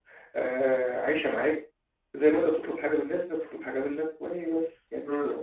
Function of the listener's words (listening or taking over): taking over